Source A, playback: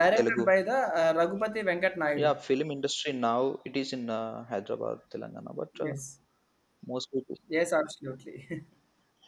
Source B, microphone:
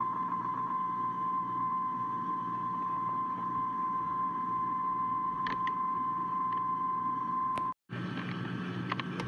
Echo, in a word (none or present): none